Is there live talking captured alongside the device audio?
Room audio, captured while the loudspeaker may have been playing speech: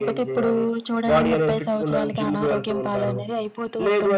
No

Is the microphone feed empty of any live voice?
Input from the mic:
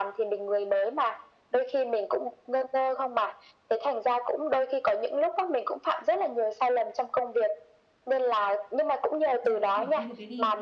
No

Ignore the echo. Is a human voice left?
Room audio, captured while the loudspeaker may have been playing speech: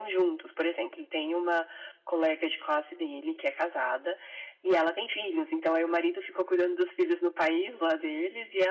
No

